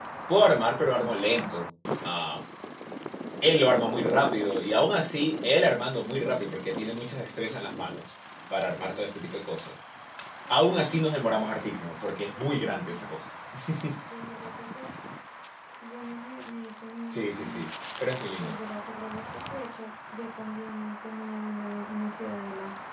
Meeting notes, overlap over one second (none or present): present